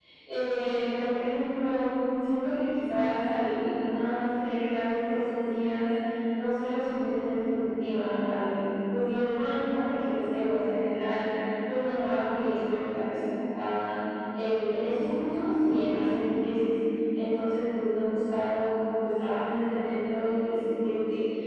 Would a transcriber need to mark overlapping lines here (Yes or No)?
No